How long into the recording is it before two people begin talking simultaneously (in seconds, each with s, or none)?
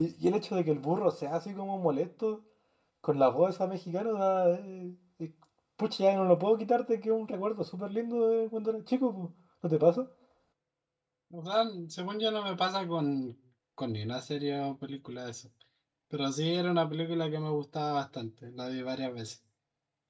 none